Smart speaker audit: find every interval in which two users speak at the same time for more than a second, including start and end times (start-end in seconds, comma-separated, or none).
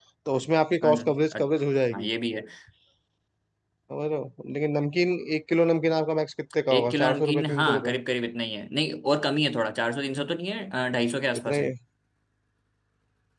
6.7-8.0